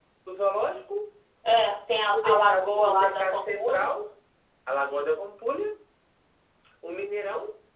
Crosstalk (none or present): present